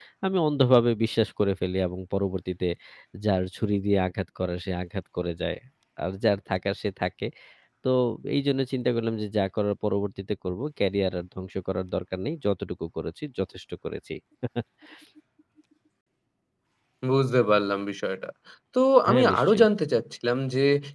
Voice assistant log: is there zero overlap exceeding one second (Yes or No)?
Yes